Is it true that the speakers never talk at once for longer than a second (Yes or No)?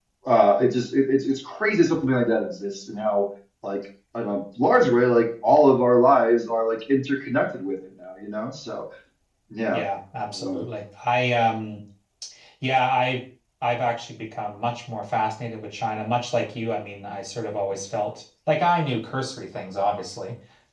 Yes